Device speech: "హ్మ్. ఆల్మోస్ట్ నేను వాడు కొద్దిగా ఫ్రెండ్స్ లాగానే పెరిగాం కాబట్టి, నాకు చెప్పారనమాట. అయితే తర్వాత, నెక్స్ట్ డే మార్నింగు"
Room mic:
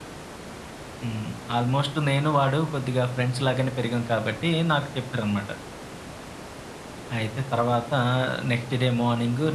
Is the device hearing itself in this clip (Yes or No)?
Yes